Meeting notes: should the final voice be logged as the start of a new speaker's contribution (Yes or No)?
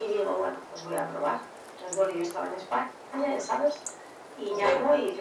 No